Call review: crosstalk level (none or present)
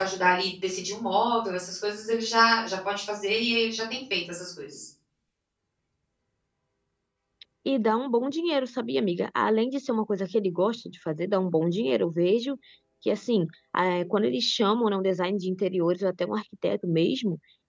none